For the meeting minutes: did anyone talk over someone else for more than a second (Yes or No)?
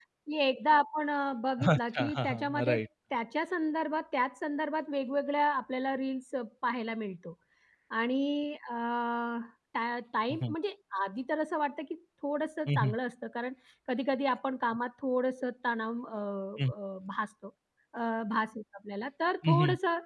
Yes